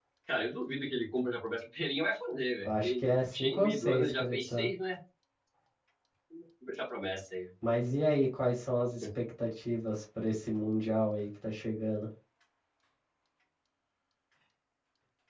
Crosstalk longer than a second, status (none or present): present